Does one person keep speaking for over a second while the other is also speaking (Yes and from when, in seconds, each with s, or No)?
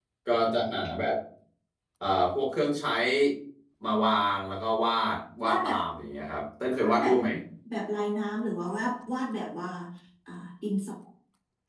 No